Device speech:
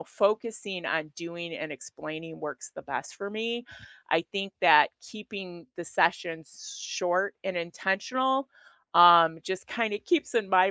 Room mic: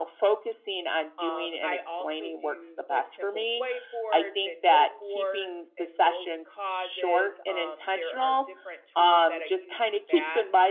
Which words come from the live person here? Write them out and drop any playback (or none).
um, I also do like simple whiteboards and note boards and note causes. Um, there are different tools that I use for that.